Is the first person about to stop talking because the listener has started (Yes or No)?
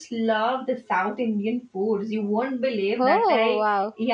No